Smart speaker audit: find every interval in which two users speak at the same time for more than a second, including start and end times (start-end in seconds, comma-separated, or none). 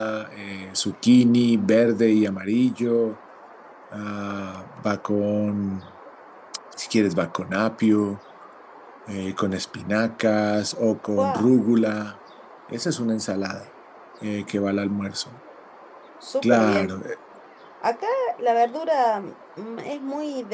none